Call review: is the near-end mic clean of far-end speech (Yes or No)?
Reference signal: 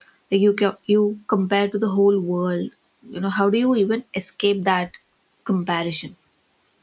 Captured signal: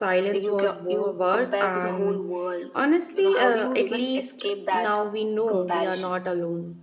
No